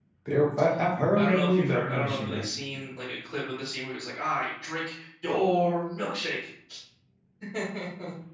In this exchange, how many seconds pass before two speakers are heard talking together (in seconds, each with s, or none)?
1.2 s